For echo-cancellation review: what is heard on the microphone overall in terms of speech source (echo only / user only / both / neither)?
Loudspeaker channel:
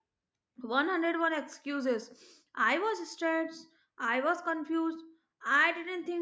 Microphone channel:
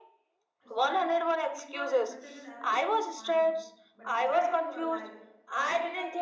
both